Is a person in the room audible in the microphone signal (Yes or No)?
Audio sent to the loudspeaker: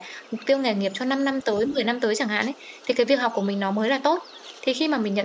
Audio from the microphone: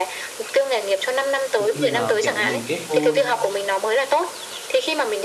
Yes